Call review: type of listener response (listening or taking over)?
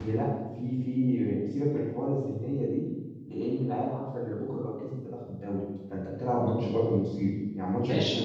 taking over